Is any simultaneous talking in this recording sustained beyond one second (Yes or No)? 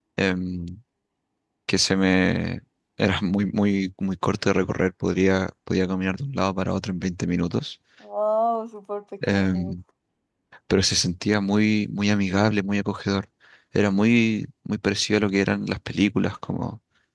No